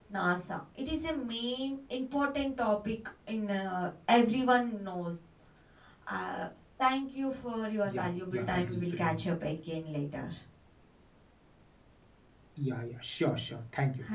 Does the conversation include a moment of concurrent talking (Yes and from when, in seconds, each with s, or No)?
Yes, from 7.8 s